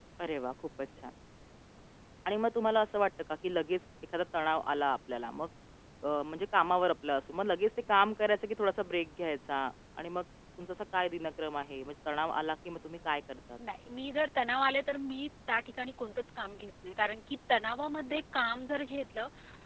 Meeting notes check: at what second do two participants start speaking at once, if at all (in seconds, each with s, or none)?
none